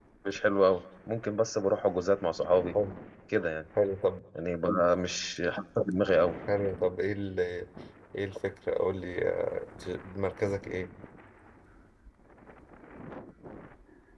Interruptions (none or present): none